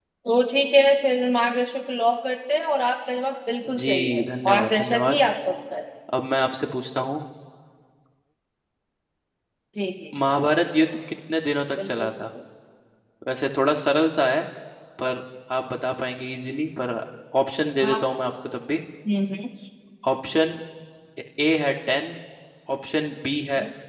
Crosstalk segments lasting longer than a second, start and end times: 3.8-5.2

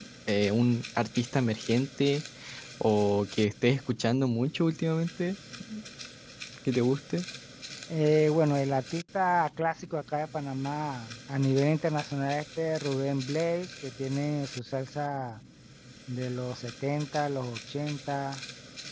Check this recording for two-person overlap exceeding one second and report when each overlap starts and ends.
none

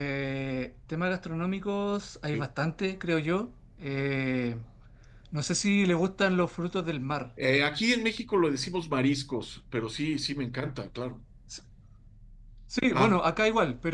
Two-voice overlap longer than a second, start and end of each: none

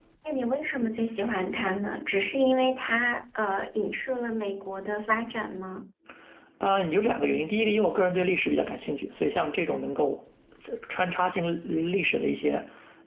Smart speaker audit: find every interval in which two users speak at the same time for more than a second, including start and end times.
none

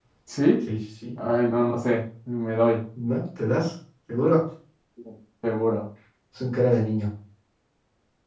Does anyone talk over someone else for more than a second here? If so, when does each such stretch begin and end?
none

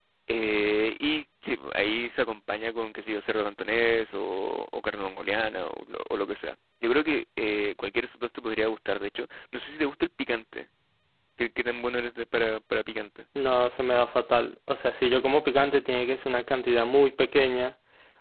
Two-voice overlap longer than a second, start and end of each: none

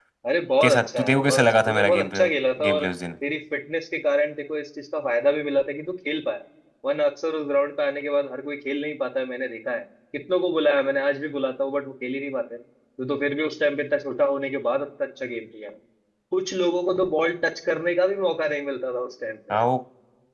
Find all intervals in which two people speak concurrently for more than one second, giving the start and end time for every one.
0.6-2.3

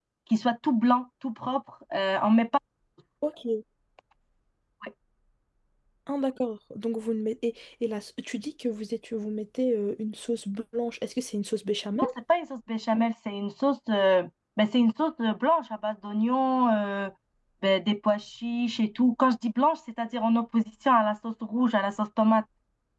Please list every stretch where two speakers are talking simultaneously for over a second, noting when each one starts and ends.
none

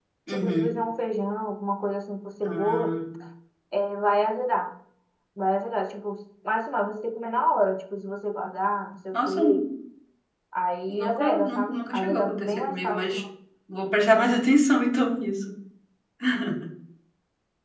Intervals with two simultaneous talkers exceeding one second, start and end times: 10.9-13.2

